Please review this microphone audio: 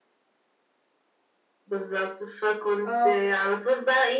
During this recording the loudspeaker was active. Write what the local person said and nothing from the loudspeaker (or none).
اه